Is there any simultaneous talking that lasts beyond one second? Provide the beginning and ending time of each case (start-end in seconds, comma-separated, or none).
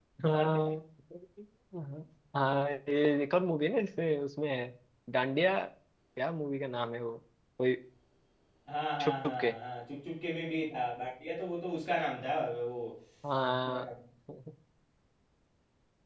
none